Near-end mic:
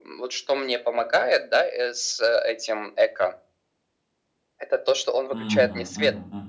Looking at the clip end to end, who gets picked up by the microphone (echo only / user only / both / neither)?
both